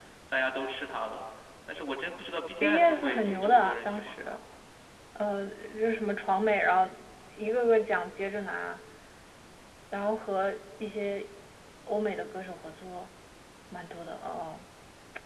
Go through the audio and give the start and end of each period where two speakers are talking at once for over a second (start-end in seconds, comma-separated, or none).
2.6-4.4